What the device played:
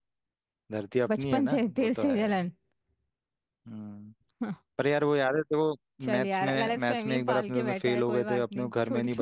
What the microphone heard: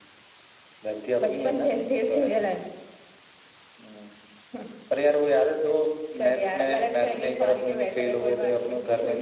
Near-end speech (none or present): none